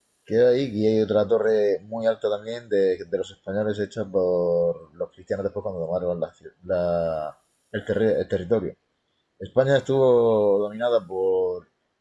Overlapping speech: No

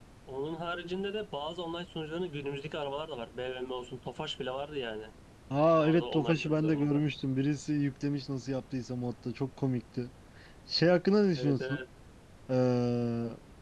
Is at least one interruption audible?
Yes, from 5.8 s

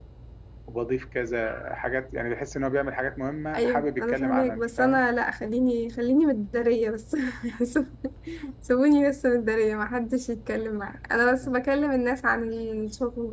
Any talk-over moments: Yes, from 3.5 s

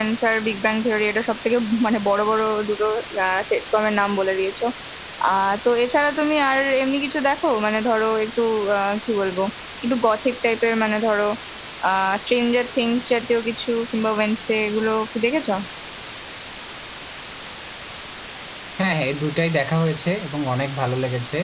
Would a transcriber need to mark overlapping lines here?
No

